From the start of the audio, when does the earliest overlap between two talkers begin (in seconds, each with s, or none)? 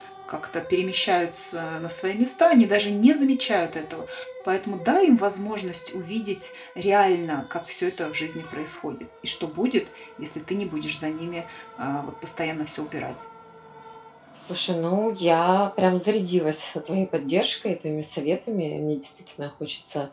none